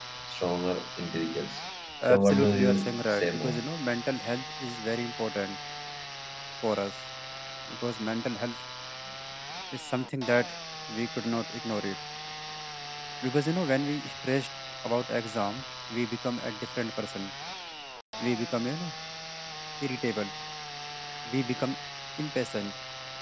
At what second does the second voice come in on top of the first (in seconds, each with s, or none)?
2.0 s